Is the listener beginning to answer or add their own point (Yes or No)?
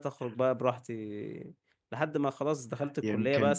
No